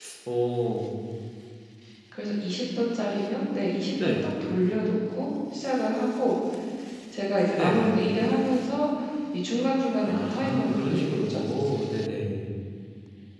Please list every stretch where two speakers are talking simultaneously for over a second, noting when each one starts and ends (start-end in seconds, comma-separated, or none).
10.0-11.4